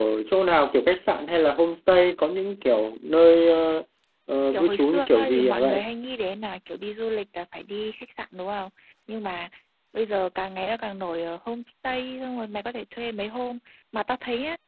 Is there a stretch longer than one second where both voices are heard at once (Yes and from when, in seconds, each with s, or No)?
Yes, from 4.5 s